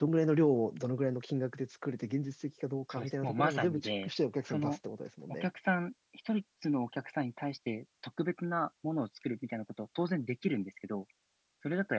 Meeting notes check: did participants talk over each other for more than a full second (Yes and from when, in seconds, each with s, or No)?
Yes, from 2.9 s